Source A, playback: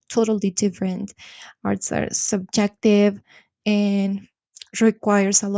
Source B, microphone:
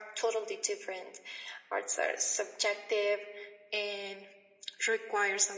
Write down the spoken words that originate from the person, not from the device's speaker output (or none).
none